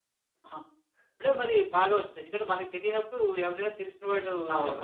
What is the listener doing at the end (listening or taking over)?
taking over